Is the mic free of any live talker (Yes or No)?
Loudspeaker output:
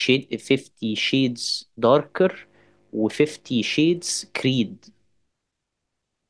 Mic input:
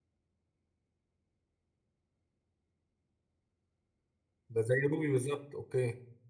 No